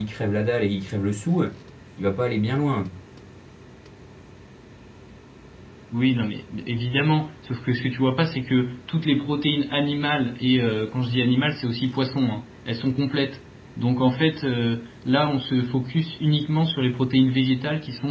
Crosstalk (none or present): none